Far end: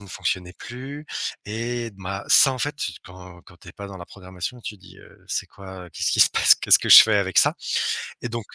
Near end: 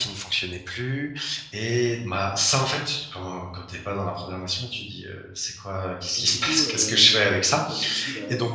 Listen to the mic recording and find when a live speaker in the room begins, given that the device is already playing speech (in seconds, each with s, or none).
6.1 s